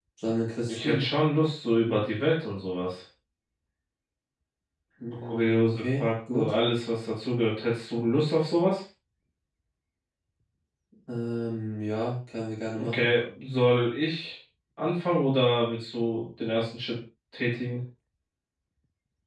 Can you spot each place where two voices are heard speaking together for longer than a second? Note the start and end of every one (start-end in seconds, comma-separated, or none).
5.2-6.5